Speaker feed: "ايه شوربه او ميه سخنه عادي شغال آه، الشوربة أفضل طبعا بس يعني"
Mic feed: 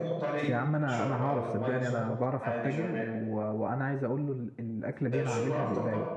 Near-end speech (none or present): present